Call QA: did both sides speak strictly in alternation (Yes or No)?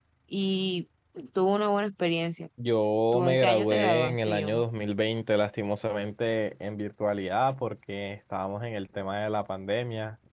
No